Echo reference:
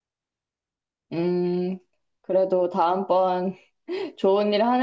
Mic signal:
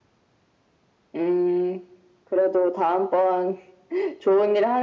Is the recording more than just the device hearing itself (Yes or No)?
No